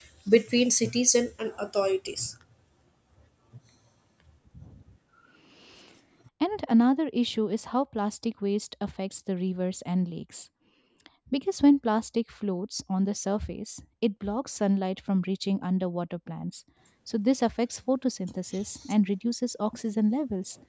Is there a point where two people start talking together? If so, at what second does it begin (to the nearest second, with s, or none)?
none